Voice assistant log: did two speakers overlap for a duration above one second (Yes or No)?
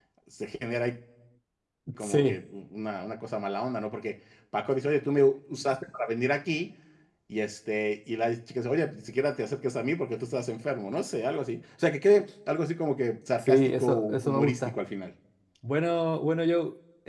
Yes